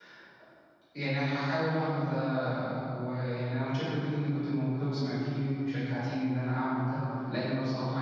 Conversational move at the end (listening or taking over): listening